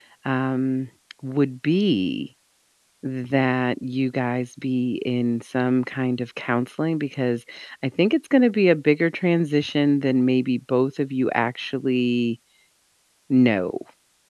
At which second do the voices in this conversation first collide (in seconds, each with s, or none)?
none